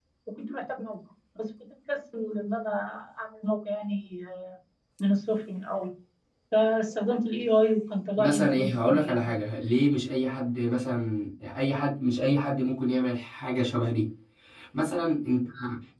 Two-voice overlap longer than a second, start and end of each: 8.2-9.4

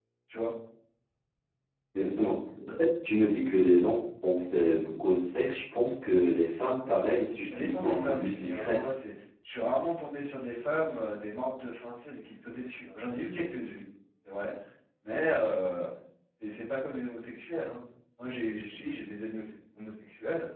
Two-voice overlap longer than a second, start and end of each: 7.5-8.9

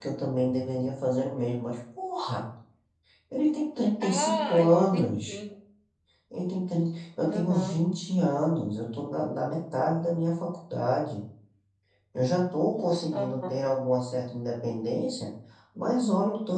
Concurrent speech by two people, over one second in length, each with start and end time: 4.0-5.4

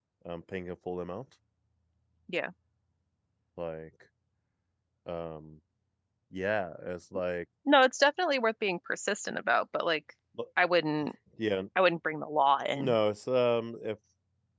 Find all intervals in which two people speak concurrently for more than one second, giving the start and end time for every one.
none

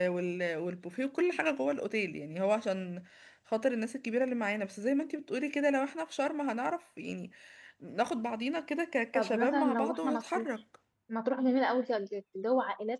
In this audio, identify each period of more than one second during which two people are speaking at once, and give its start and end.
9.1-10.5

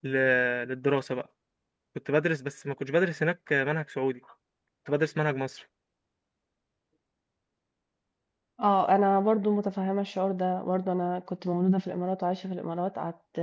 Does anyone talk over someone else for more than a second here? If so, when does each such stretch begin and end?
none

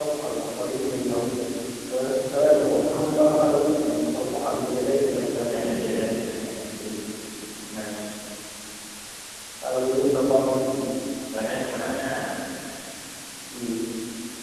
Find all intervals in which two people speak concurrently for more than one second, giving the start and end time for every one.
none

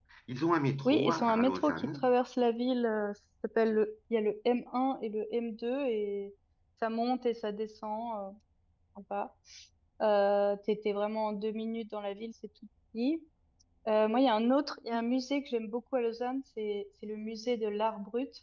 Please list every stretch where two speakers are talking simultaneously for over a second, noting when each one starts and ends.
0.8-2.1

